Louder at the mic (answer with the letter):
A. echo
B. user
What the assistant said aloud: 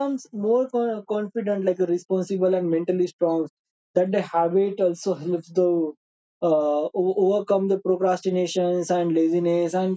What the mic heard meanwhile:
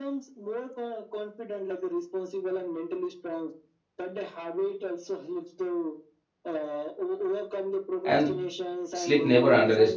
B